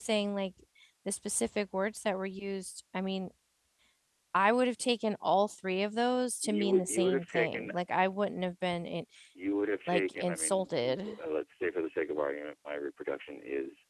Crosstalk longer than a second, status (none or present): present